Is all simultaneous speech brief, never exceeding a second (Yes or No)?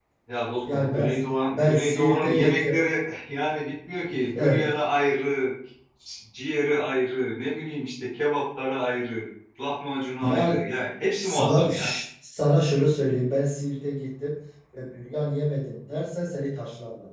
No